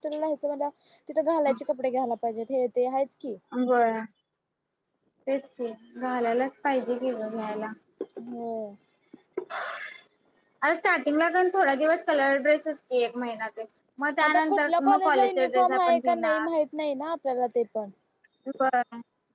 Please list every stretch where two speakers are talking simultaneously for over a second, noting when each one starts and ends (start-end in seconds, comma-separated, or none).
14.2-16.5